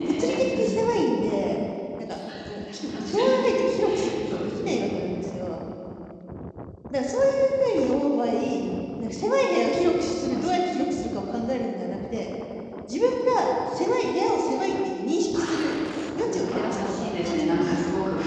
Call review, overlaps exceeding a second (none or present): present